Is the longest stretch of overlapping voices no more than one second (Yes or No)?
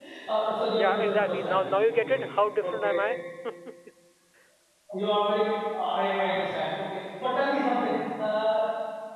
No